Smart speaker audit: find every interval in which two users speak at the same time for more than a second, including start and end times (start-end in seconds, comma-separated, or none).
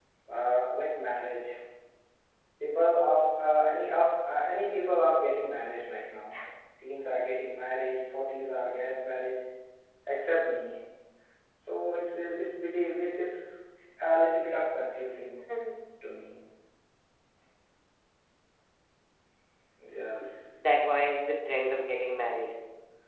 none